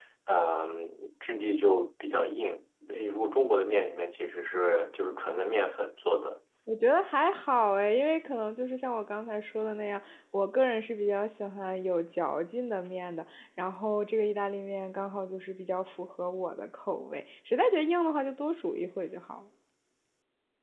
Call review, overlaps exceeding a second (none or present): none